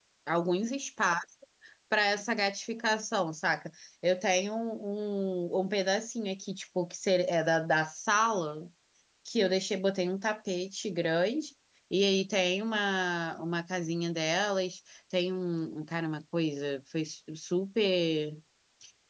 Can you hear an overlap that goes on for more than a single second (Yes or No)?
No